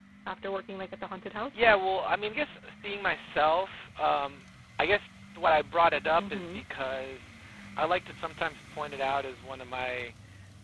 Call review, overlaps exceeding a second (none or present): none